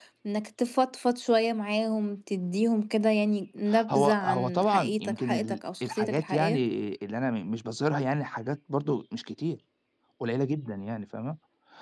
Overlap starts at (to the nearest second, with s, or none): 4 s